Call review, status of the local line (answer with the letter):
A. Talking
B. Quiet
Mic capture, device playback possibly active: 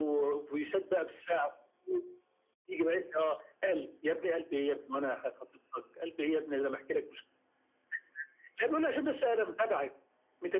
B